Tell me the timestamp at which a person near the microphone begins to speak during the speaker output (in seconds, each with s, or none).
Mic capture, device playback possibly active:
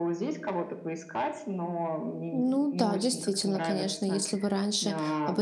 2.3 s